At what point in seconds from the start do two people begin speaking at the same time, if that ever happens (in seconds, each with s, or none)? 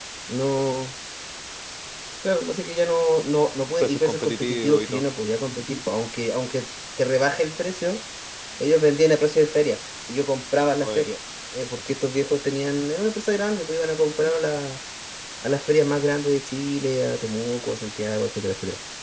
3.8 s